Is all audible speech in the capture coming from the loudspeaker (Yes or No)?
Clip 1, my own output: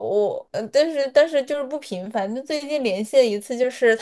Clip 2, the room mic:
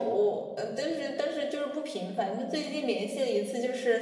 Yes